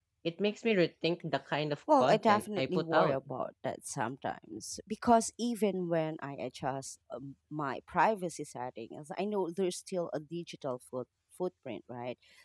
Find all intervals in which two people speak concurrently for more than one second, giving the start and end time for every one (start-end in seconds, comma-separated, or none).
1.9-3.2